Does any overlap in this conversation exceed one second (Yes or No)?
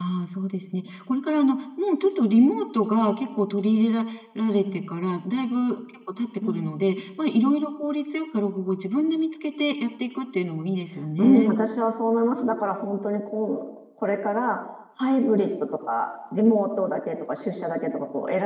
No